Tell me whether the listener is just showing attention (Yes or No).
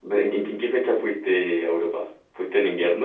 No